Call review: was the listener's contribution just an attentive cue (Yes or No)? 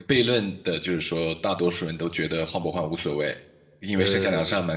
Yes